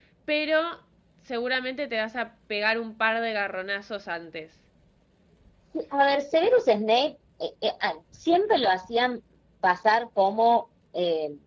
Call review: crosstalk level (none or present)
none